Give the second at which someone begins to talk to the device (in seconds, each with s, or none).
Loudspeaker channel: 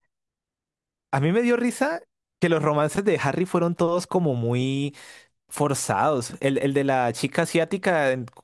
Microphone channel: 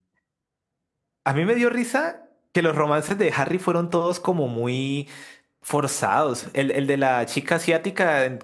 none